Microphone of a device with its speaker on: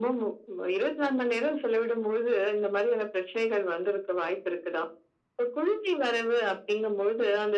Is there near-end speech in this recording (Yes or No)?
No